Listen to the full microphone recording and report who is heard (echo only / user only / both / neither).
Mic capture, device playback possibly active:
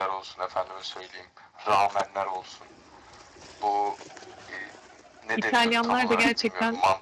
both